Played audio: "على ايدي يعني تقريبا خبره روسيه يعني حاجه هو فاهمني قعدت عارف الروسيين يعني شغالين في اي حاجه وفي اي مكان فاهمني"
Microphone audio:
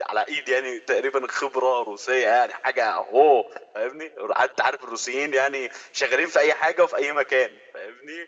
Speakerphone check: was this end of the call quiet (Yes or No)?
Yes